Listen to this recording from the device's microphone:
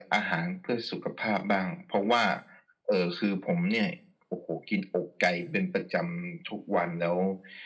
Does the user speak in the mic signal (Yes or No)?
No